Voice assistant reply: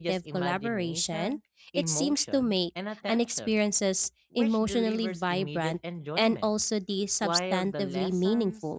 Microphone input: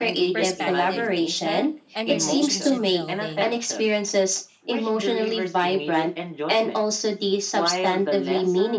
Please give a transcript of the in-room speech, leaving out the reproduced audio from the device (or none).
perspective taking, and relationship building.